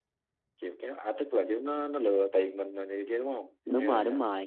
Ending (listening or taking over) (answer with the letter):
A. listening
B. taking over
B